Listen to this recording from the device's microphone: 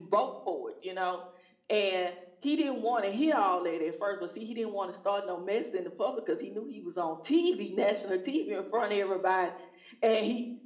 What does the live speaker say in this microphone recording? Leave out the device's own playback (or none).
none